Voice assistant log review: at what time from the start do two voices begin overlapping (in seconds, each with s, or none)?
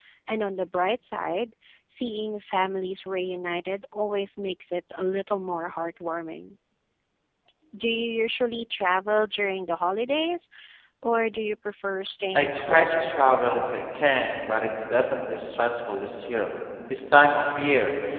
12.4 s